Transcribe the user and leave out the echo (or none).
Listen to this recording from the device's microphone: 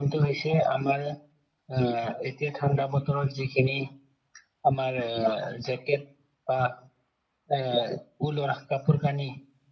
none